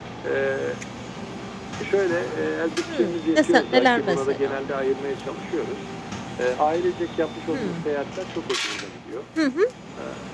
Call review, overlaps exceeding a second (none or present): present